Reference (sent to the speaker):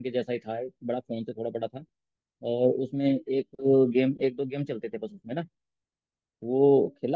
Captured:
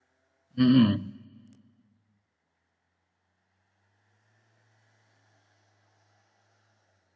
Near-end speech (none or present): present